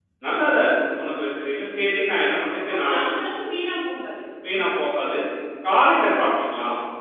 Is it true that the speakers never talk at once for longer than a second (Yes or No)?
Yes